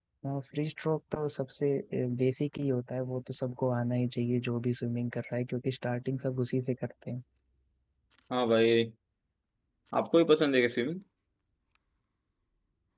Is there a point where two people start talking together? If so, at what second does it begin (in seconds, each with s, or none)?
none